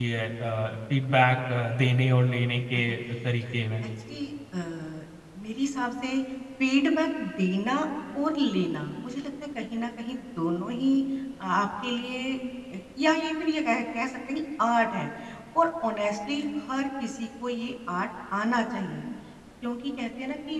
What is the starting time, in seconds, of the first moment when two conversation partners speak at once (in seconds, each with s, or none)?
none